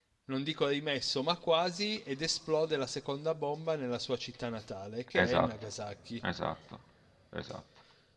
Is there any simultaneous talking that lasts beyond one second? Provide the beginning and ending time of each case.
none

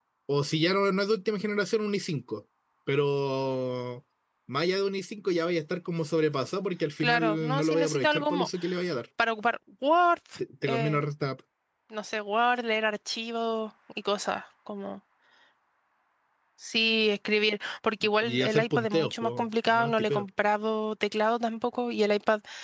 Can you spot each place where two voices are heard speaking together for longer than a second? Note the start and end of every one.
7.0-8.5, 18.2-20.2

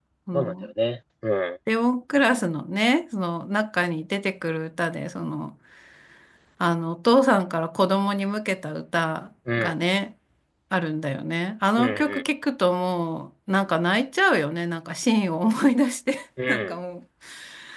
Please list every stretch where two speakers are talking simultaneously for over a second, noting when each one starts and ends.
none

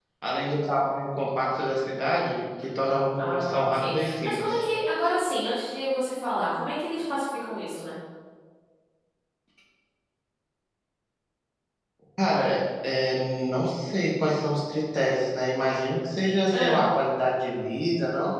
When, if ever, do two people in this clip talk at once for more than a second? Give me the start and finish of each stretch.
3.2-4.6

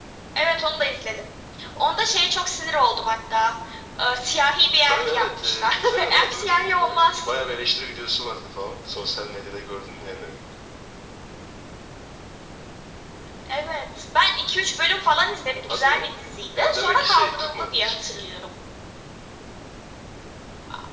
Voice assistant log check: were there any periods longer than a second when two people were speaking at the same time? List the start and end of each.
4.8-7.2, 16.6-17.9

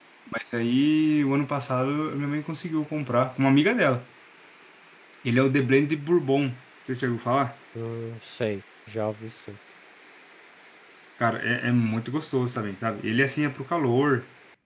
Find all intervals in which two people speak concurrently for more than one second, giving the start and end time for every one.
none

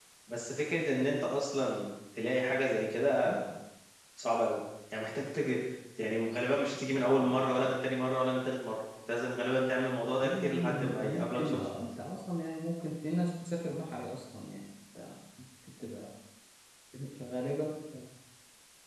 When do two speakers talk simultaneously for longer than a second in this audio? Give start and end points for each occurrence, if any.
10.2-11.6

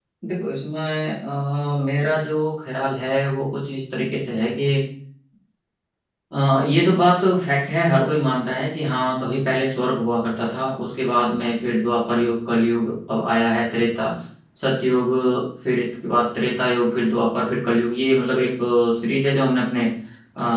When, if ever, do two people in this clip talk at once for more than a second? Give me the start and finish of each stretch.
none

